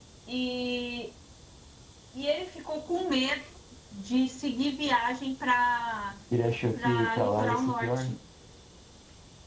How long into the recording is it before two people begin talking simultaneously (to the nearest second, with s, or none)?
7 s